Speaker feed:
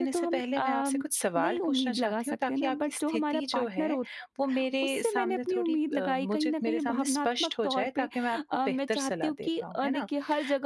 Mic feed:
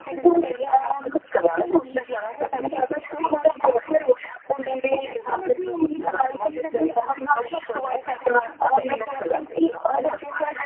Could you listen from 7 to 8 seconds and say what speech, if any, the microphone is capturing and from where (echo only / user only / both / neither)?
echo only